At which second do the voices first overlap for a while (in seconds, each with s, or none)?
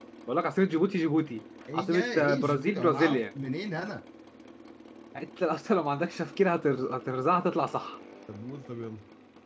1.7 s